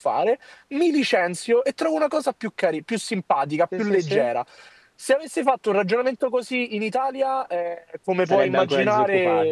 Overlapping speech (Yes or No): Yes